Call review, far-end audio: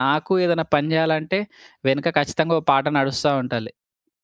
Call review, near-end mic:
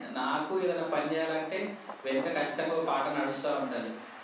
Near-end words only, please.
none

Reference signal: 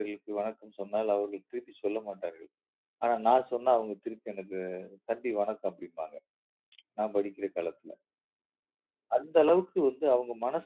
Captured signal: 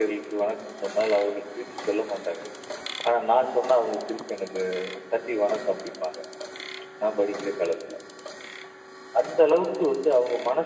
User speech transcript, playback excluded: none

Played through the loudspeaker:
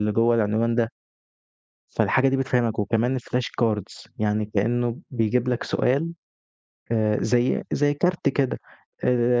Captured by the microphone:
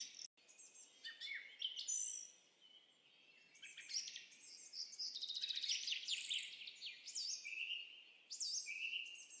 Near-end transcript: none

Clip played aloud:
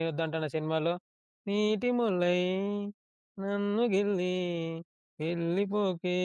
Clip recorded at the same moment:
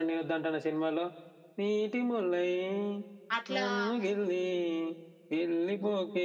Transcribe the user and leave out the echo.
అట్లా అవును.

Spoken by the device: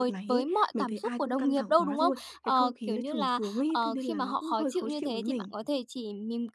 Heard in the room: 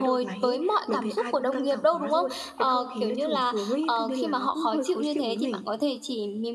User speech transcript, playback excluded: none

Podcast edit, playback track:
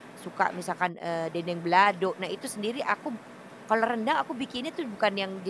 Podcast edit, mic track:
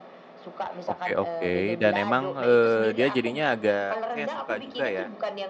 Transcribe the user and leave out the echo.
Oke oke, dan emang, eee, dia jadinya agak saya suka juga ya?

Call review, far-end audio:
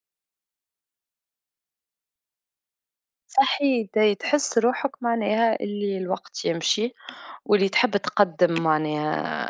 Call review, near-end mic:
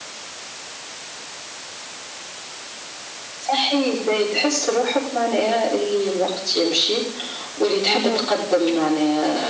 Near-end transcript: أها،

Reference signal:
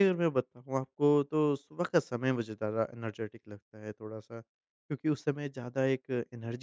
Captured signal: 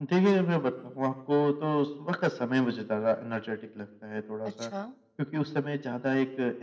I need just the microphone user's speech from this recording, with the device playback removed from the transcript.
अच्छा।

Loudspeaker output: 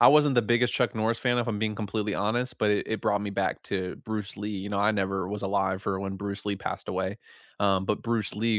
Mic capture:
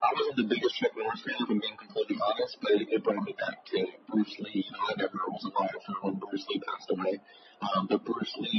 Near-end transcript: none

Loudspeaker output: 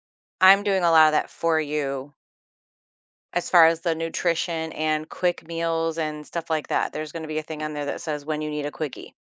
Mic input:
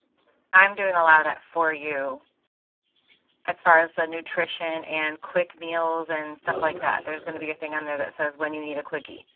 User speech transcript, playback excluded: wellness and uh,

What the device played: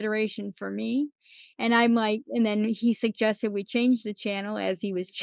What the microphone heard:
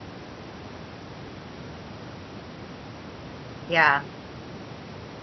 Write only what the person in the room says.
Yeah.

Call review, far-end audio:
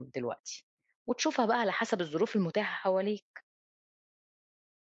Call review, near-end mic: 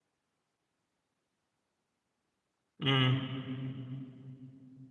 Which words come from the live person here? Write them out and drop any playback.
إمم،

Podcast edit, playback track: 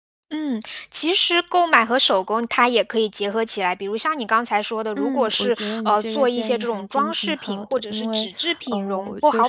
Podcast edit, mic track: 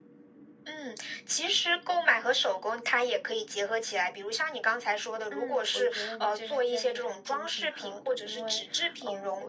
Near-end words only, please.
none

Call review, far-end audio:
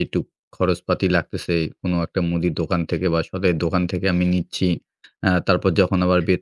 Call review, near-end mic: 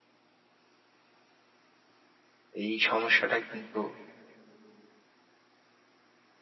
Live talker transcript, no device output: এই সমস্যাটা কিন্তু

